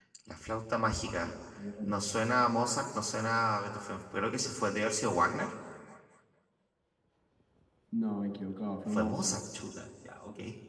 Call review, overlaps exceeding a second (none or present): none